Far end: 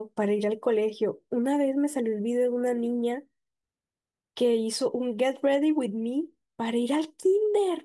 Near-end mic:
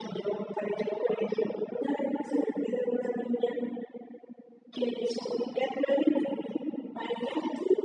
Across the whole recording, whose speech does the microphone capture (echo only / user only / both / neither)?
echo only